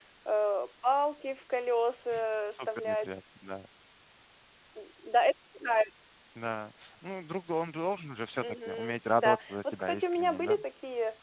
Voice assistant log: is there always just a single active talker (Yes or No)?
No